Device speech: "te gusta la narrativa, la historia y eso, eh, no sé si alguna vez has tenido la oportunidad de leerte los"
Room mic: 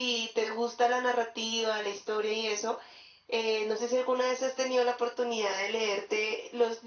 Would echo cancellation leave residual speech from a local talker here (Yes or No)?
No